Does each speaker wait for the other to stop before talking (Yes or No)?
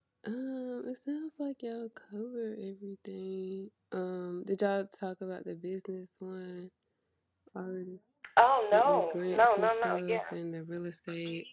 No